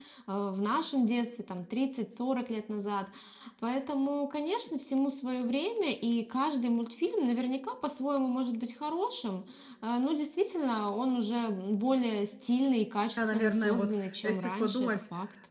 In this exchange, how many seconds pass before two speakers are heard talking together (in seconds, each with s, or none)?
13.2 s